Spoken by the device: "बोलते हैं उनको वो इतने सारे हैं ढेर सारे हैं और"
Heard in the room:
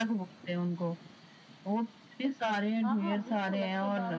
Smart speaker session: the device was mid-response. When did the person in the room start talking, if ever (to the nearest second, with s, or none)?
3 s